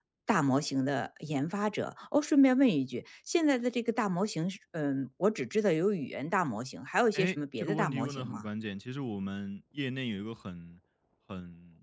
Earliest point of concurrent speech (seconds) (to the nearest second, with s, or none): 7 s